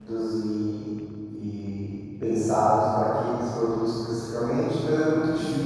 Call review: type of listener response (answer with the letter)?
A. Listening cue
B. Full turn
A